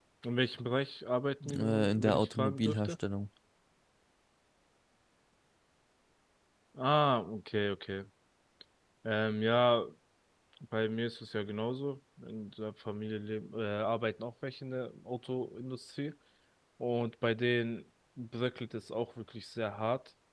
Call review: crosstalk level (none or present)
present